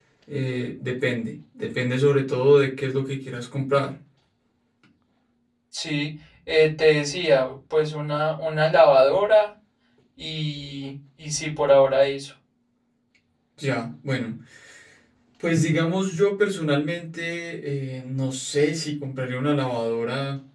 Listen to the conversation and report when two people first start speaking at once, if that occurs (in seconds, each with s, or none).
none